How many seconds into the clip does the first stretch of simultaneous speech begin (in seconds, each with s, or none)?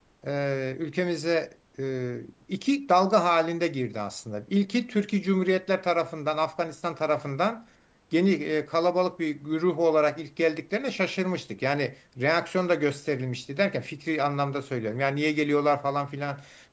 none